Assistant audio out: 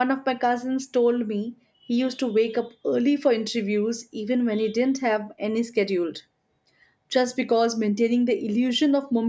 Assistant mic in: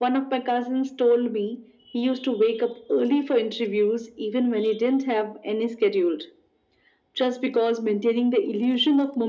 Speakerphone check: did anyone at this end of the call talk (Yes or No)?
No